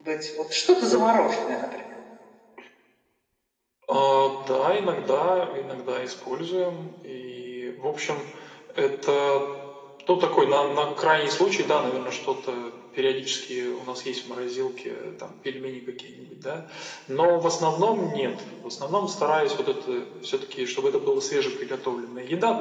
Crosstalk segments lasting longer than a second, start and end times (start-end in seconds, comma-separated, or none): none